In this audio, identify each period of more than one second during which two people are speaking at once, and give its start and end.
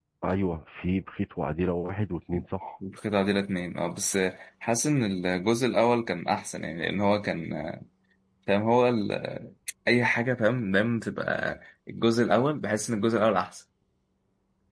none

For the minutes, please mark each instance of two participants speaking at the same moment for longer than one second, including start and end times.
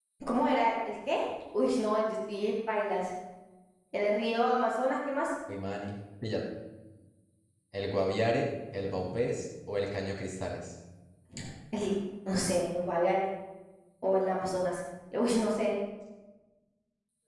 none

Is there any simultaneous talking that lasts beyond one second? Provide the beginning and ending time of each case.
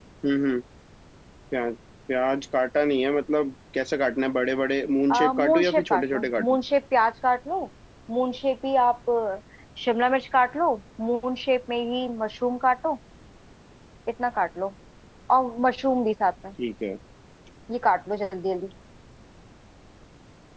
5.1-6.6

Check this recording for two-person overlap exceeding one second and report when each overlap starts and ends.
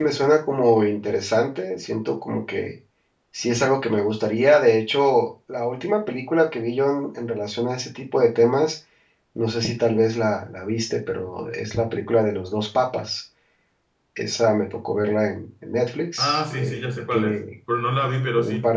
16.2-17.4

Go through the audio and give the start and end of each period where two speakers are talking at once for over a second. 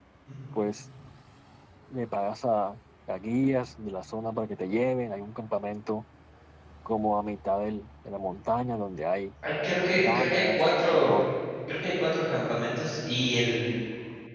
10.0-11.2

